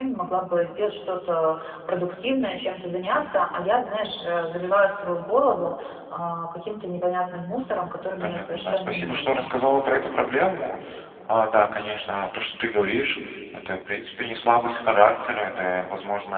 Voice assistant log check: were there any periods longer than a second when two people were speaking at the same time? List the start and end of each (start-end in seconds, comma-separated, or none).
8.2-9.5